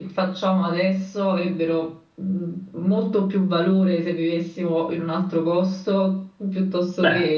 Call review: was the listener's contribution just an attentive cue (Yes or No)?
No